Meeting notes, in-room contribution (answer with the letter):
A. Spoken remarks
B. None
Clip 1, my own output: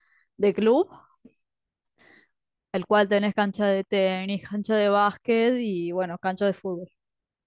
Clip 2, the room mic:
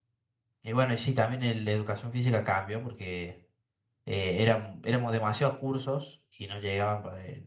A